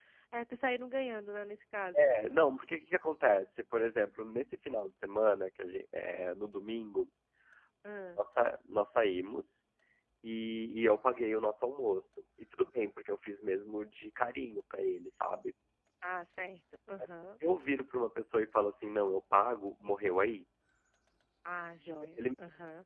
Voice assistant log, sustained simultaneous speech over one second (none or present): none